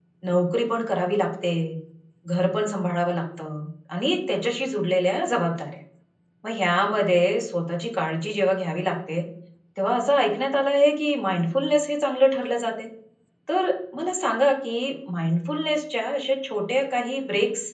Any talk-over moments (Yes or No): No